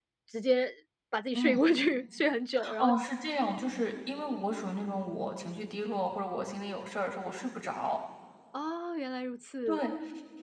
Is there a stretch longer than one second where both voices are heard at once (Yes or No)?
No